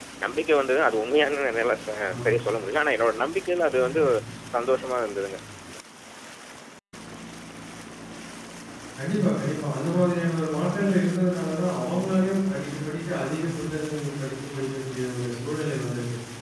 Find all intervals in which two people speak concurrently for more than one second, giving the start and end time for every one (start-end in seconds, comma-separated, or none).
none